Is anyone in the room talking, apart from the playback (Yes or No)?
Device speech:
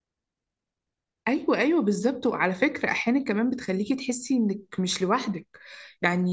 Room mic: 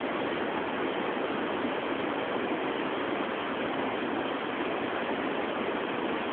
No